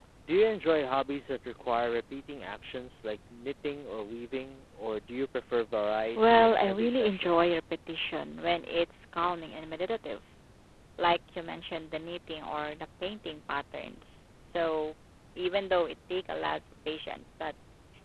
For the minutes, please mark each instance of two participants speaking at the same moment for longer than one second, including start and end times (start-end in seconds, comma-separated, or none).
6.2-7.4